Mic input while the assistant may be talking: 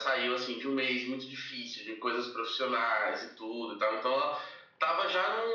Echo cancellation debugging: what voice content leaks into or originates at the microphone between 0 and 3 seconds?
echo only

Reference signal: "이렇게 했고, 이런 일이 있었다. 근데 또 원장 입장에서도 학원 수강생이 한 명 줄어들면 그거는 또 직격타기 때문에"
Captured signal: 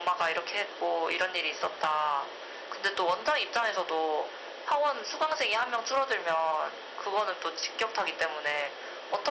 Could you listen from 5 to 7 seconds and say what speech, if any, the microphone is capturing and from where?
echo only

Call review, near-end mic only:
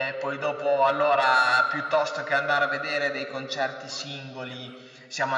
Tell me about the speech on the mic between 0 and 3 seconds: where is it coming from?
echo only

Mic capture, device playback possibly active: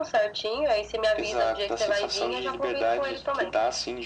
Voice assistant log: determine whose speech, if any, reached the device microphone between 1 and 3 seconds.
echo only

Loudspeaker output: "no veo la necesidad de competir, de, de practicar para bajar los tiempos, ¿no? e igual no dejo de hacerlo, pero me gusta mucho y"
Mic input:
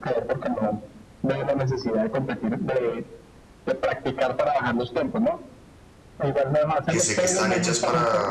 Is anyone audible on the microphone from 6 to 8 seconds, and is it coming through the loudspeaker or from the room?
both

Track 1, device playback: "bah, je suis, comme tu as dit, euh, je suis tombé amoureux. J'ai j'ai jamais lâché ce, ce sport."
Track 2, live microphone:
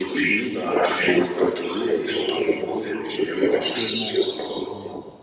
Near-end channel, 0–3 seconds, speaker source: both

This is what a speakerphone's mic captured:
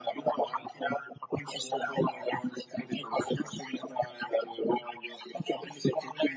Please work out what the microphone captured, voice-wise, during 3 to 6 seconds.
echo only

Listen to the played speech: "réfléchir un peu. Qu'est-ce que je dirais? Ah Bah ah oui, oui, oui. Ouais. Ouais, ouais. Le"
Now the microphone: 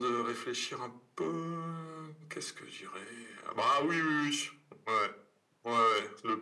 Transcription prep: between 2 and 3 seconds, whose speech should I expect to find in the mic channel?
echo only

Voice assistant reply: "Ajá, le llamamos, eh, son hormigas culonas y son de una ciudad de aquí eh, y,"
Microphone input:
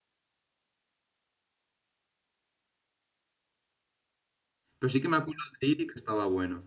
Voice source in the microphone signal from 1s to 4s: neither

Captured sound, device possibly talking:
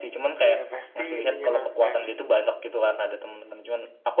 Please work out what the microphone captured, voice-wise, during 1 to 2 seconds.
both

